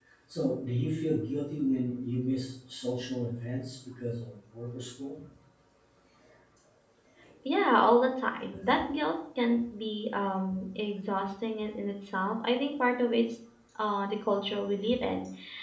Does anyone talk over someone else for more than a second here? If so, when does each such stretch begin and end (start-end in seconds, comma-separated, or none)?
none